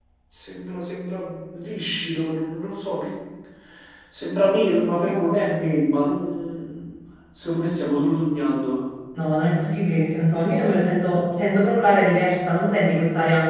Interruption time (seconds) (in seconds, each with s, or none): none